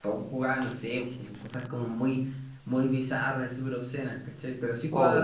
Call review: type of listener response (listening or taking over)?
listening